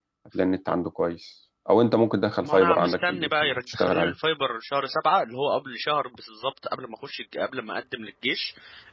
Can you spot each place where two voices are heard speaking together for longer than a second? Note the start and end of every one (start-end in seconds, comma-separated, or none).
2.4-4.1